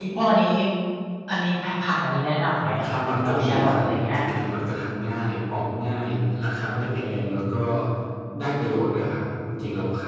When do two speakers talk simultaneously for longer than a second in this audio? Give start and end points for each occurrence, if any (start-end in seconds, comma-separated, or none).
2.6-4.2